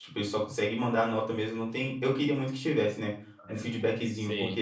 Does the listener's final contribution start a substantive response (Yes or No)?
No